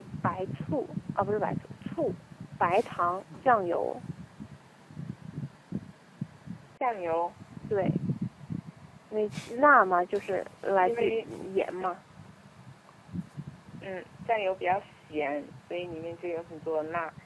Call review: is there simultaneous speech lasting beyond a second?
No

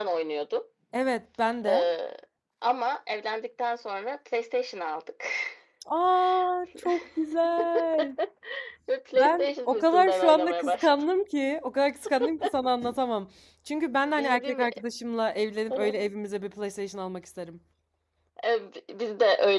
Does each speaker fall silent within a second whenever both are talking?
No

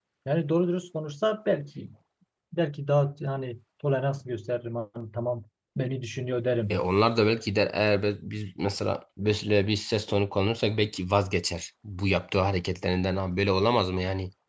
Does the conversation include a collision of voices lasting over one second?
No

